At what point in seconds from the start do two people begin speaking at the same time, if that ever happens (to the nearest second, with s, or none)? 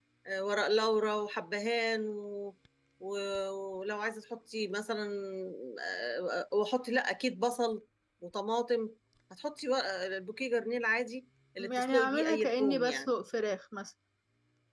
12 s